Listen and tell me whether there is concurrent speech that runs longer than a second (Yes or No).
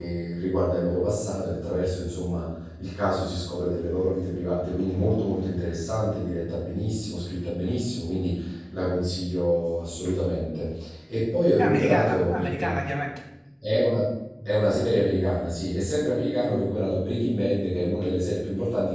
Yes